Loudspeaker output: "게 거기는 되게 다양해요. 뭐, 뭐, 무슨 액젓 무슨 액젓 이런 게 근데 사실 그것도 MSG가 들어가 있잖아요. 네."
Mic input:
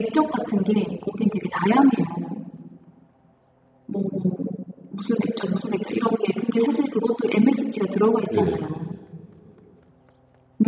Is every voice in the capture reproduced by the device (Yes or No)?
No